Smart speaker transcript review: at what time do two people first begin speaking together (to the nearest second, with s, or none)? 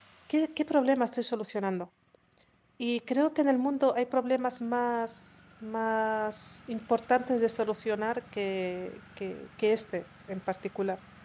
none